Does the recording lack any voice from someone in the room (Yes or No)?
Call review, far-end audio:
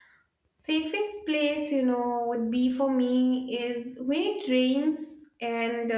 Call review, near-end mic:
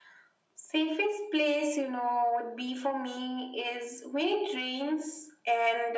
Yes